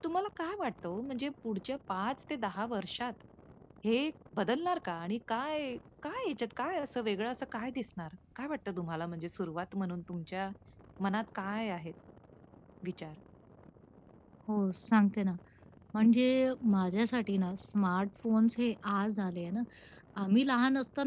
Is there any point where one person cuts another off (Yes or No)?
No